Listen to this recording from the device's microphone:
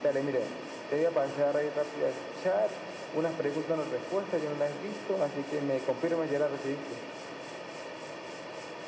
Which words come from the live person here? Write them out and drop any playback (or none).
none